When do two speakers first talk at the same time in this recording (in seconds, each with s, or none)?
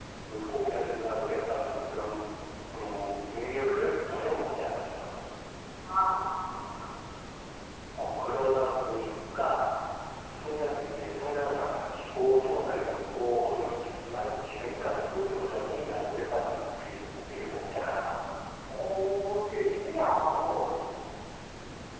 none